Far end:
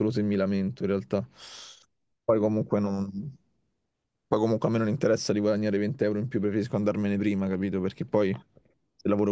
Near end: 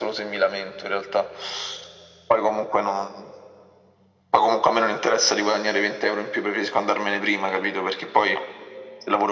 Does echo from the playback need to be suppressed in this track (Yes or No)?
Yes